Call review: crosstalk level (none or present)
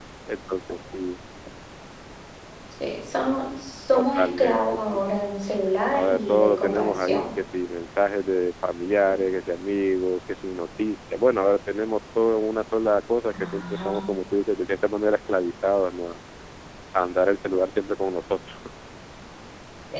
present